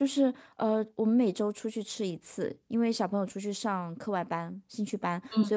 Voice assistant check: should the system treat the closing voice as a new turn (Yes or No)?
No